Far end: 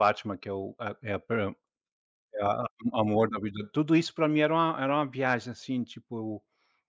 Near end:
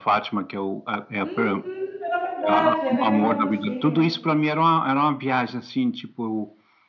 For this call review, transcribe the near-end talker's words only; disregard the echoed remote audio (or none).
uhum, era verdade, era em Andalucia